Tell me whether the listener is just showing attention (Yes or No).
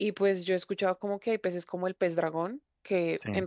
Yes